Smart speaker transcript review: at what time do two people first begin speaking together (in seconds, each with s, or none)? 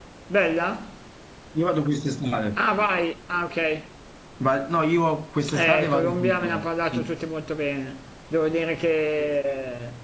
5.5 s